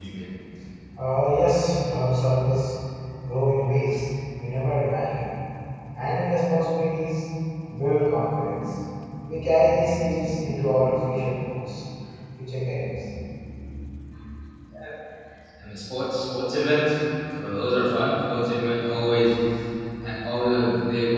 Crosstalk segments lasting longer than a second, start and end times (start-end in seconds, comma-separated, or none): none